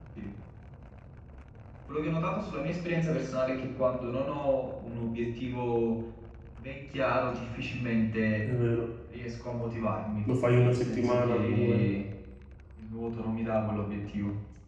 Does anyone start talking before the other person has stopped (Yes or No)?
Yes